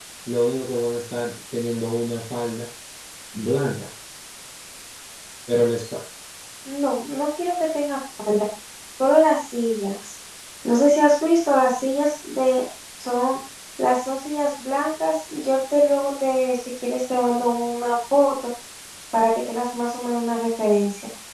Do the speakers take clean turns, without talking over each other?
Yes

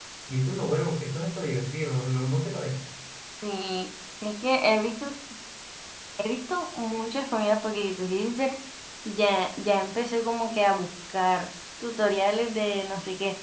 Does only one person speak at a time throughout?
Yes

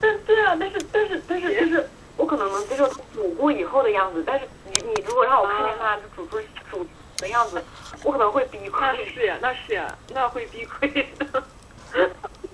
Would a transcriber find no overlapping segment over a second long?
Yes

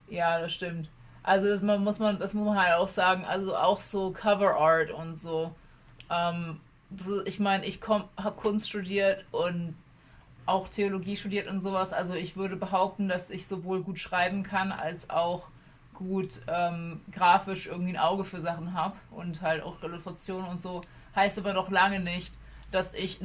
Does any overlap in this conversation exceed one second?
No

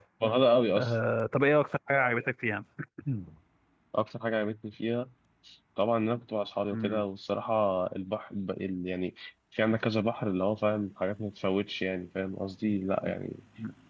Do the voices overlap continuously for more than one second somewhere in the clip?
No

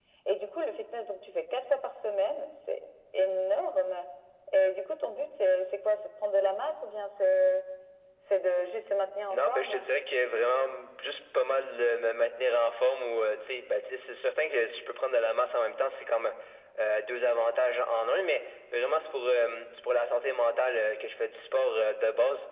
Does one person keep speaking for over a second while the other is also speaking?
No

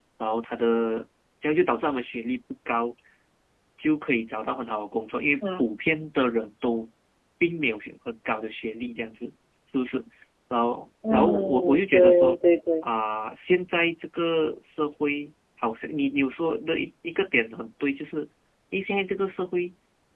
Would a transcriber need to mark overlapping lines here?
Yes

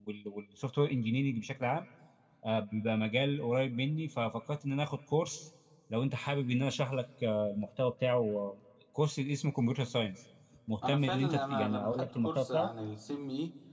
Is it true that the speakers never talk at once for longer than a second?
No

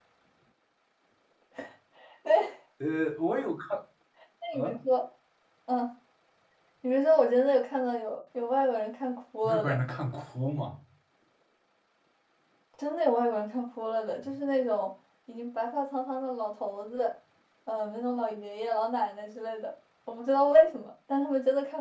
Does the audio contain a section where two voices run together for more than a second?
No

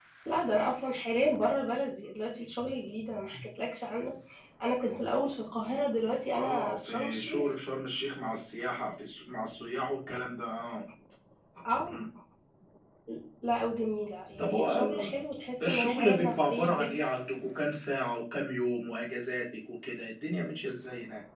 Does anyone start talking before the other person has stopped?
Yes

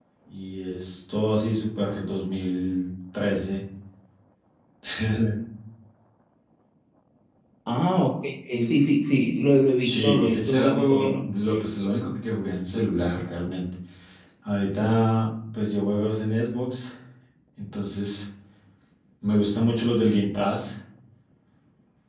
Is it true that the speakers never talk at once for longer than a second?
No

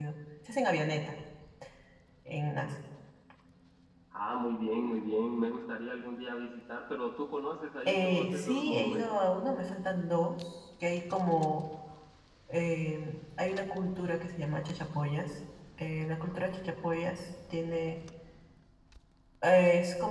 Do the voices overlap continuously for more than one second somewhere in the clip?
Yes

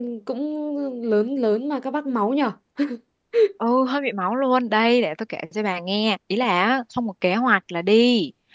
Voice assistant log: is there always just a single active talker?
Yes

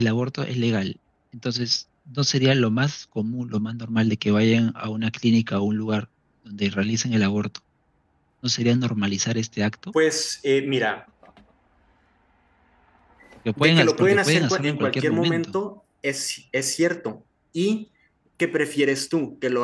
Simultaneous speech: Yes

